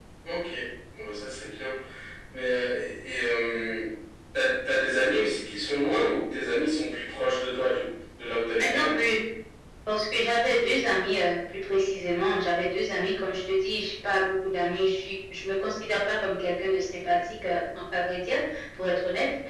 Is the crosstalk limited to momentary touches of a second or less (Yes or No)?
Yes